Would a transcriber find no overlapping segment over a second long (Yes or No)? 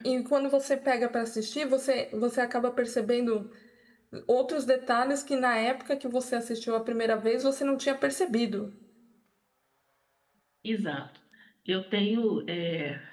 Yes